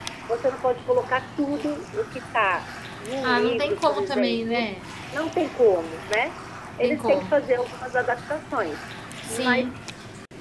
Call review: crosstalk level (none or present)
present